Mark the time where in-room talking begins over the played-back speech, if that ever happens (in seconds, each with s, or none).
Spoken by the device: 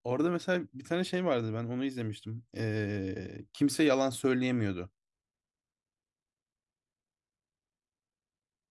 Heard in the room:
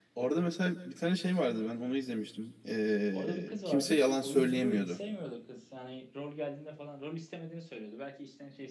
3.1 s